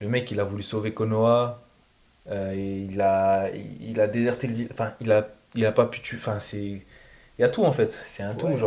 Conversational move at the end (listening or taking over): taking over